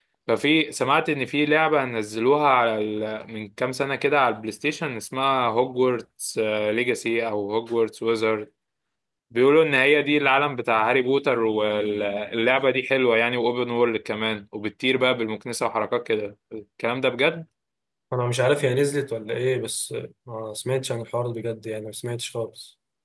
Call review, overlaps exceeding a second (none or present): none